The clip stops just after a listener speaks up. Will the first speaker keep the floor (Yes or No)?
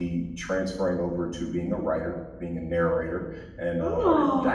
Yes